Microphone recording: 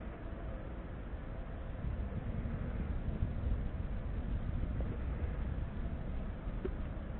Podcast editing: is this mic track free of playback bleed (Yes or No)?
Yes